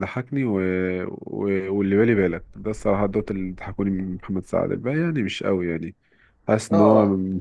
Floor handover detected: No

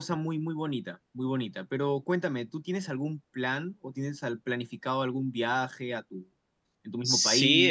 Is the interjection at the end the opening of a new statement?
Yes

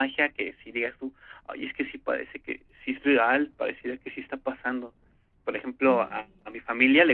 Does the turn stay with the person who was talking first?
Yes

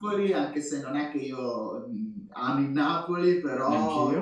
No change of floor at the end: Yes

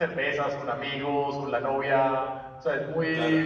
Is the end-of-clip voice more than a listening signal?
No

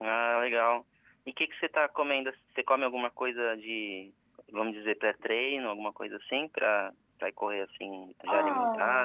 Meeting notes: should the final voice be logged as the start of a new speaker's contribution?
Yes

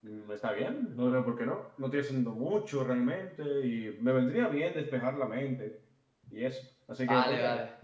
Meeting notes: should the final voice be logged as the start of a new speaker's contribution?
Yes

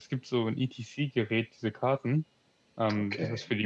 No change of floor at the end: Yes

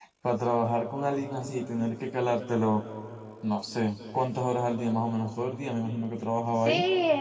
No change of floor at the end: No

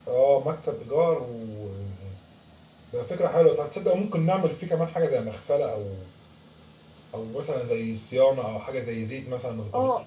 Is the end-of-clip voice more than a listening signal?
Yes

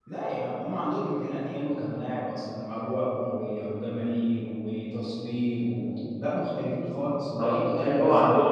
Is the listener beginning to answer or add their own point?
Yes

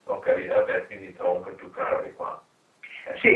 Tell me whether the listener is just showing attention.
No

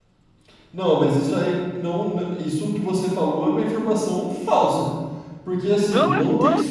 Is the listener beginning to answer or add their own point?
Yes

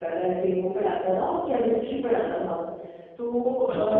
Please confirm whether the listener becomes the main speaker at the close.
No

